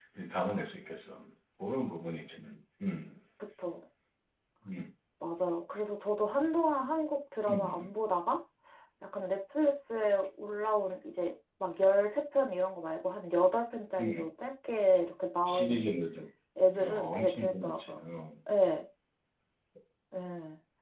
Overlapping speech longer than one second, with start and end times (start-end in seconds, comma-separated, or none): 16.8-18.0